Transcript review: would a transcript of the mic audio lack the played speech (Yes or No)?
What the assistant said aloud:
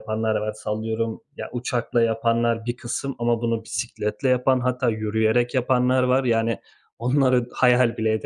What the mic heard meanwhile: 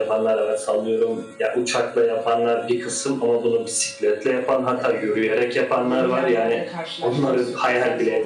No